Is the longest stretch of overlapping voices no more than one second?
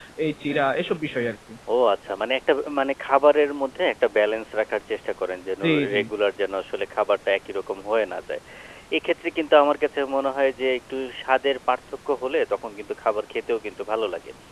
Yes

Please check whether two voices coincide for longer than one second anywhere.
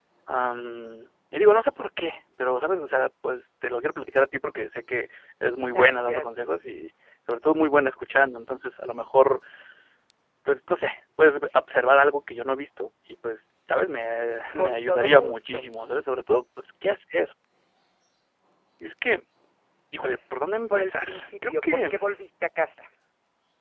Yes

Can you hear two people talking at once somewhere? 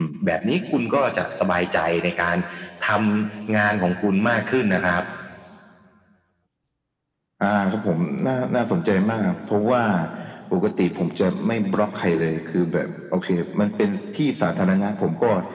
No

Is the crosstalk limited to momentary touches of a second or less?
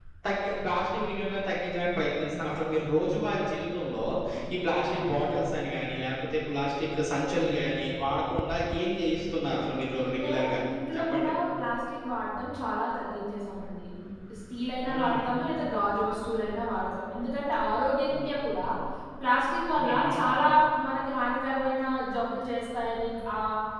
Yes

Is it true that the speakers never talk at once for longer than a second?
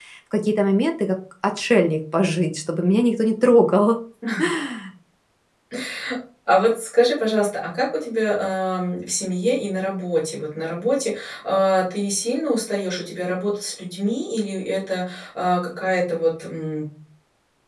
Yes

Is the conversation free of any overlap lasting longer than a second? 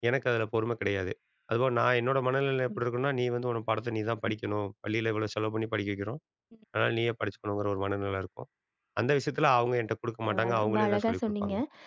No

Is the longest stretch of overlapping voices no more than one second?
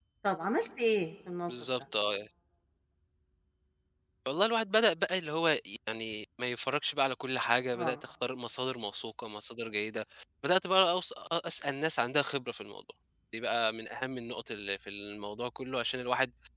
Yes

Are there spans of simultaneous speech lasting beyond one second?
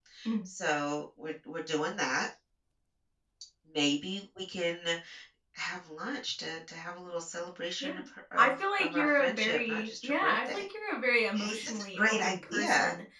Yes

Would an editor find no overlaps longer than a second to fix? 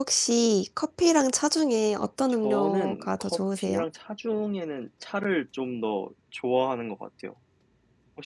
No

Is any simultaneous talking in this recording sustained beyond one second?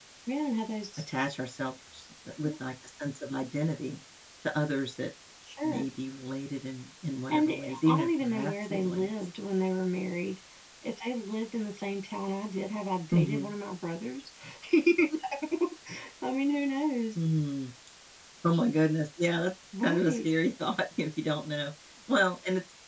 Yes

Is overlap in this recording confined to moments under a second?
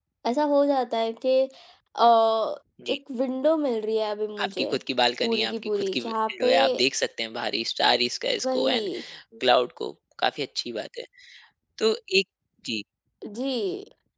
No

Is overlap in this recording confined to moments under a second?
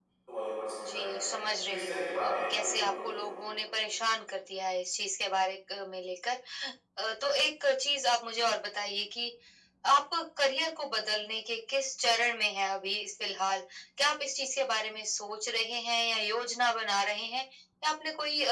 No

